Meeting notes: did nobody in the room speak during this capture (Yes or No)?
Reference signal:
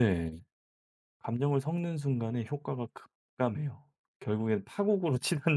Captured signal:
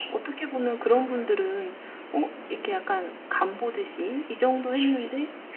No